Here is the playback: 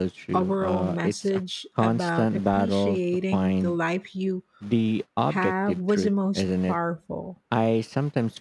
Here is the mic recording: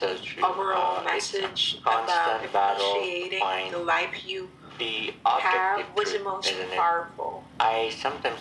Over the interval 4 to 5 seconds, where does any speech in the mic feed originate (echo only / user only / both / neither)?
echo only